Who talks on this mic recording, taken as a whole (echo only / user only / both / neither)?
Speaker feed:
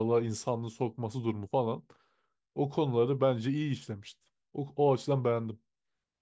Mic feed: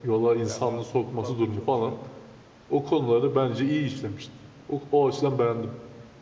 both